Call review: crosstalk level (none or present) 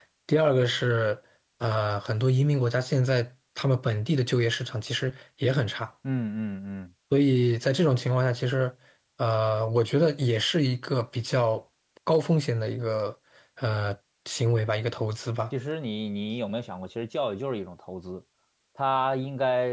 none